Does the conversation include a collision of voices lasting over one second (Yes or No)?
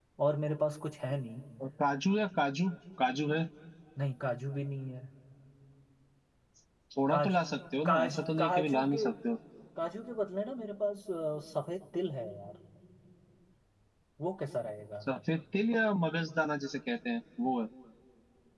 Yes